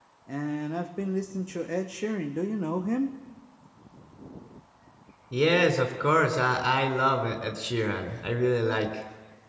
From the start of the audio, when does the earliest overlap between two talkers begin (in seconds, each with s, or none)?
none